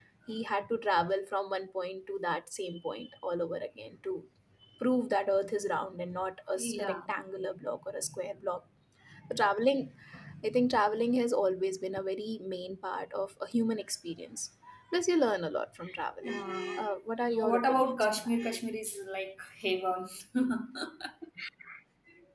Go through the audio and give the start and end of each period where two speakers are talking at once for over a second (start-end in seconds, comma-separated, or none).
17.4-18.6